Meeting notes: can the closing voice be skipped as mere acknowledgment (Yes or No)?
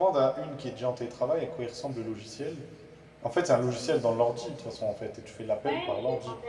No